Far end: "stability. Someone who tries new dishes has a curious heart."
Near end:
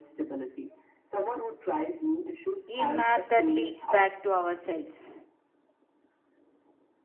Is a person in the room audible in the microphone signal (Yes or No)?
Yes